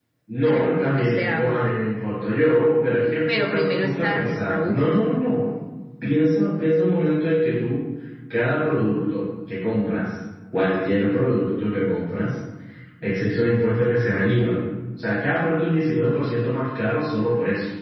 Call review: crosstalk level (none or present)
present